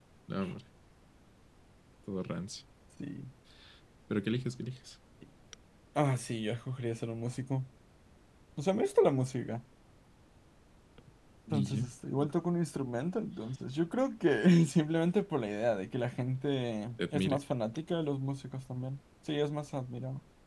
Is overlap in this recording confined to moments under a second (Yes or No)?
Yes